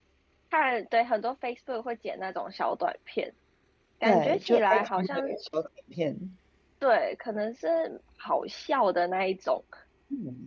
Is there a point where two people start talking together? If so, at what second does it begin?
4 s

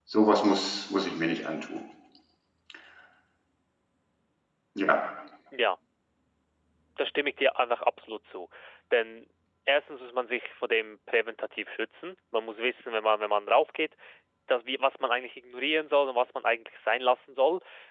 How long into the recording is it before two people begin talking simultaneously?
none

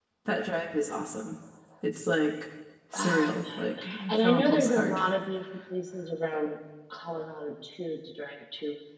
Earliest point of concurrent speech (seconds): 3 s

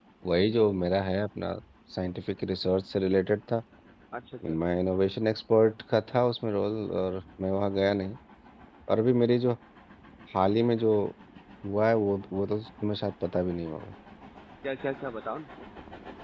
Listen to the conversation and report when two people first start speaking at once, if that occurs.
none

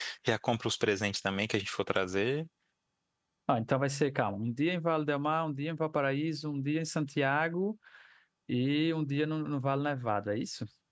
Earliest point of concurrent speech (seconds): none

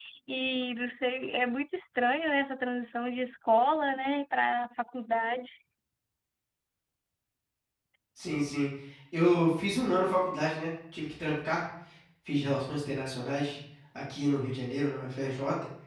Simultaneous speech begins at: none

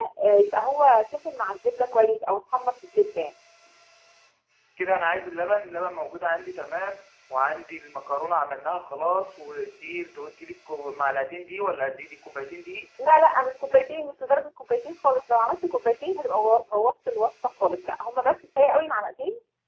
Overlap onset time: none

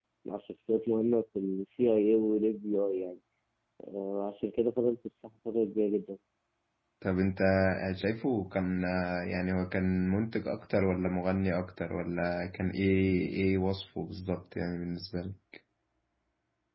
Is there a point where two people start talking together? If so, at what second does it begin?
none

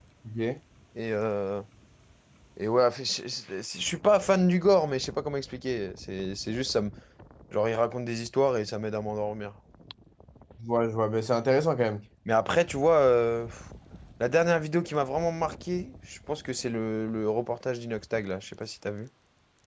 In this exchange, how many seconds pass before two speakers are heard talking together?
none

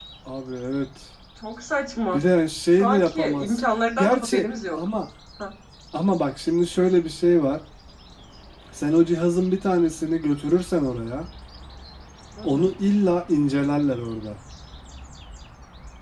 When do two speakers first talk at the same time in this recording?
3 s

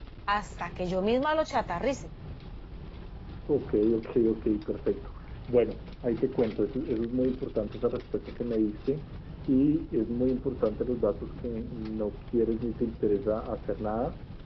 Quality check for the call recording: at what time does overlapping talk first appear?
none

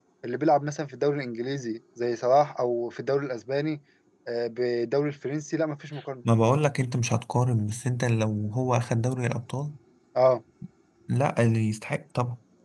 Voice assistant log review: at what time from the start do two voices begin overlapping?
none

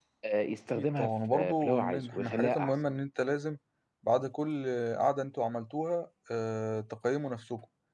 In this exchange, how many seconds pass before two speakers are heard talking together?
1 s

